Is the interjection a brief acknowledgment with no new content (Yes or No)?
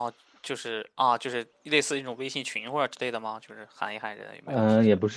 No